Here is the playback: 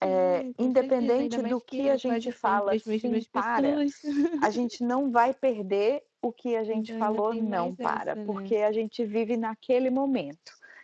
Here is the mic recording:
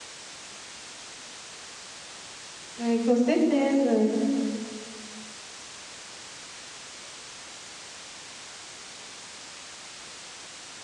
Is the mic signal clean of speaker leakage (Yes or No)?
Yes